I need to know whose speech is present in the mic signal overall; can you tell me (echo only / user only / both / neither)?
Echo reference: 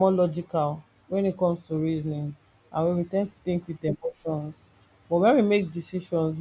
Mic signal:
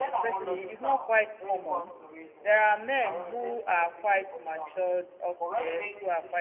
both